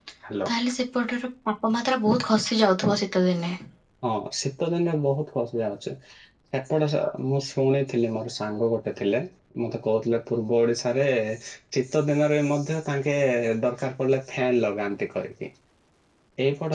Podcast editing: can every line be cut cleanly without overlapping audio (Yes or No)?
Yes